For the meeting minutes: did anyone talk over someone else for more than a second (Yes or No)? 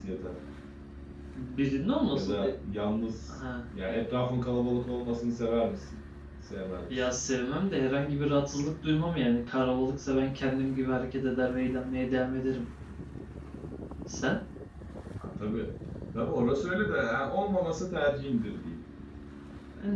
No